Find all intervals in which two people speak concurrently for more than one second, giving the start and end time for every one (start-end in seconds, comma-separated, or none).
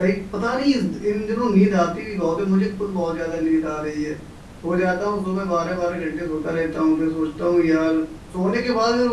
none